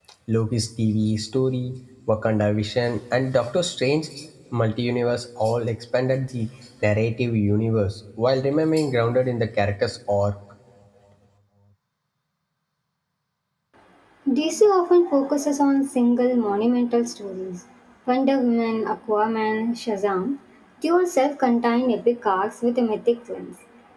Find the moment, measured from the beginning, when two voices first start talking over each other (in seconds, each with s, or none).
none